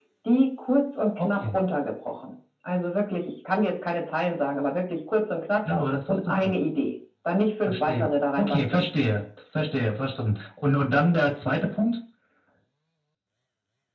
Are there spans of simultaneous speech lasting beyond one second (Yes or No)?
Yes